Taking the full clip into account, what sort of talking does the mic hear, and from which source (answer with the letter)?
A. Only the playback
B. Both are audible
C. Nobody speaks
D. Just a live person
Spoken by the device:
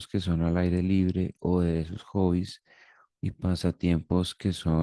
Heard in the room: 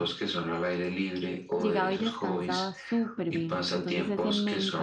B